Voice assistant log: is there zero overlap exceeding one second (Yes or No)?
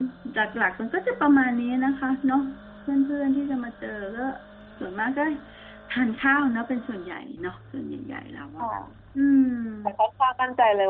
Yes